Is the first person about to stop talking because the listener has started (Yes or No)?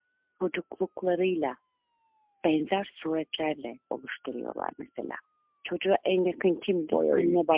No